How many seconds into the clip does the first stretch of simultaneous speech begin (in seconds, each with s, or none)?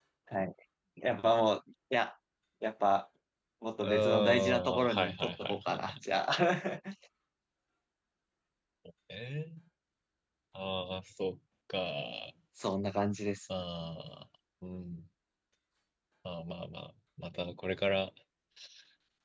3.8 s